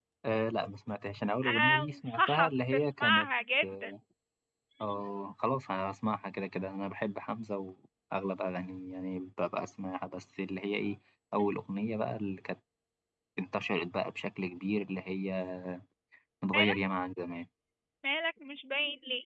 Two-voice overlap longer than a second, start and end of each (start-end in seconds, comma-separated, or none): 1.5-3.3